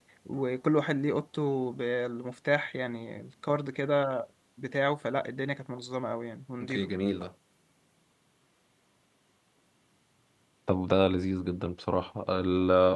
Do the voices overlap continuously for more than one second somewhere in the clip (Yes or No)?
No